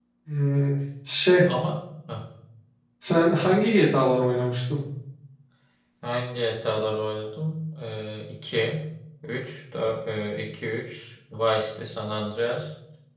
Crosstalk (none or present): none